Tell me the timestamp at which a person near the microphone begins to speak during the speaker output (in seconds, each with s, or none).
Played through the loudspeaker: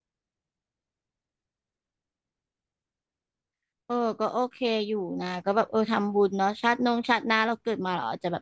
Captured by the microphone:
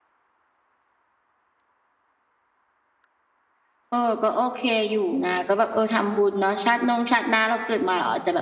none